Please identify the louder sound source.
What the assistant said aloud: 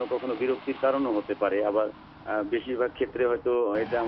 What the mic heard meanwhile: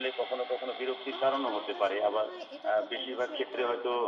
echo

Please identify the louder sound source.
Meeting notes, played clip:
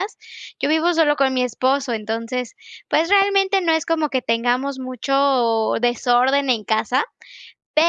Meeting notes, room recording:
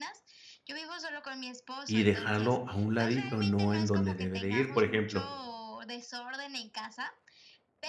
user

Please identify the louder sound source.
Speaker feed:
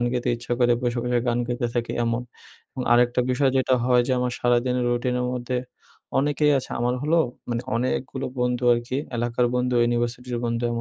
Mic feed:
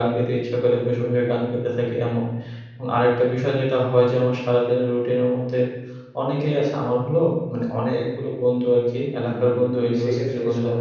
echo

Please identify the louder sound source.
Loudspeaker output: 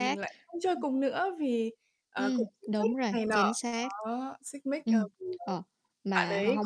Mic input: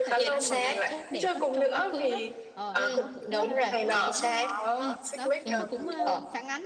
echo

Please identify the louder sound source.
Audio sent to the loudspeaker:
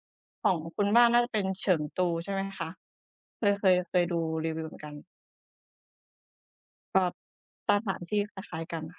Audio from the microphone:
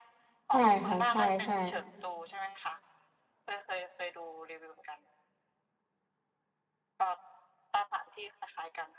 user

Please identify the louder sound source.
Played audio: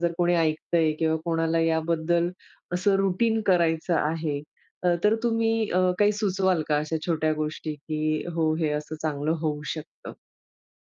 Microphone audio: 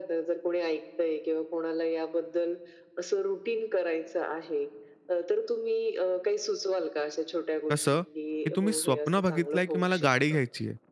user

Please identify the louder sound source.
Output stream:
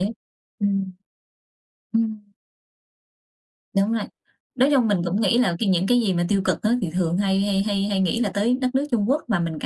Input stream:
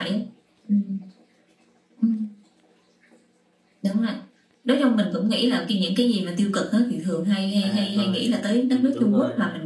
echo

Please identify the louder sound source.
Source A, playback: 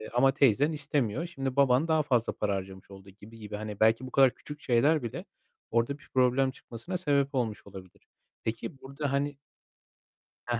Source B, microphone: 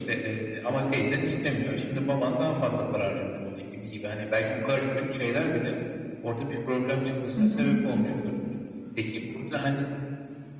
user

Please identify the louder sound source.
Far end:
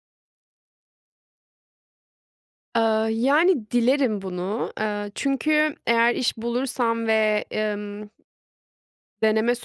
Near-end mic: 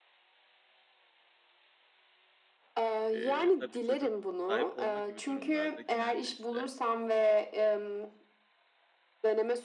echo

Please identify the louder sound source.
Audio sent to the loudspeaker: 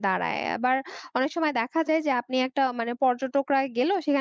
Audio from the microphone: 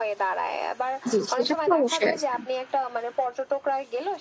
user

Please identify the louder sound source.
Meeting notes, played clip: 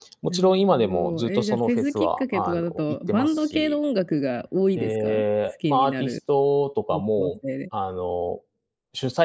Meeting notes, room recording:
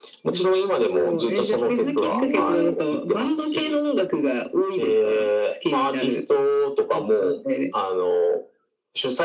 echo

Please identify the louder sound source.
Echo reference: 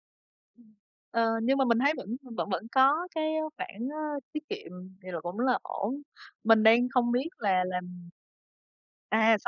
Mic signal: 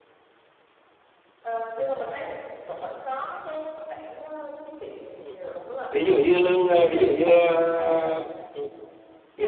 user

